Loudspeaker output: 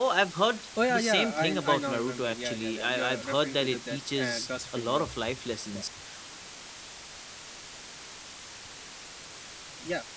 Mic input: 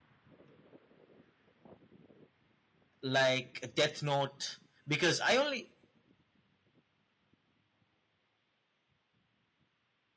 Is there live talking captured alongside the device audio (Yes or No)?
Yes